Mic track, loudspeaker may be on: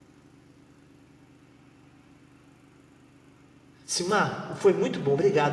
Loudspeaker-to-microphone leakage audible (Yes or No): No